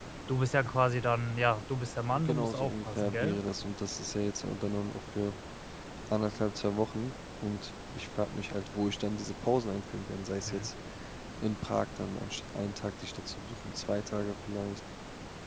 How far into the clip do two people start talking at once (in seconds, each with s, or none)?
2.1 s